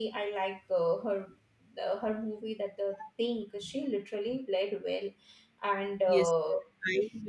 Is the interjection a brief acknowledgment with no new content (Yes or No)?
No